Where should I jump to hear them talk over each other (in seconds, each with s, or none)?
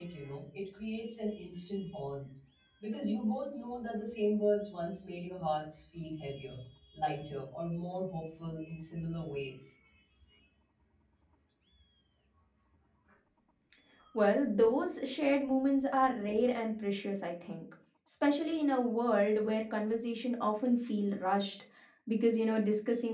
none